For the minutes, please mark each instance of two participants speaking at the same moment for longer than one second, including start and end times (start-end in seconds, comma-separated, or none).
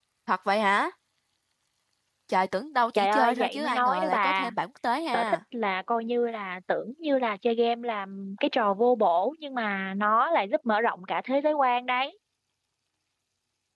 2.9-4.5